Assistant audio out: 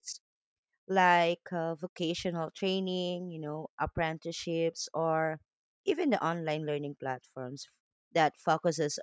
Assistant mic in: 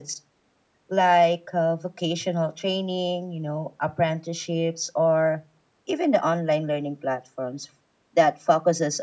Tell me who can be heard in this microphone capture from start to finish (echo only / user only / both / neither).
echo only